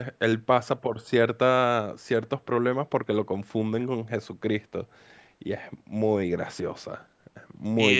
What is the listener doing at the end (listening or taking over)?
taking over